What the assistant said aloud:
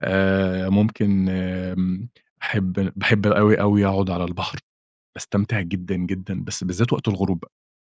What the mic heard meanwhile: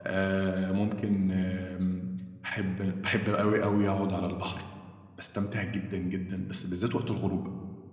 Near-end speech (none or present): none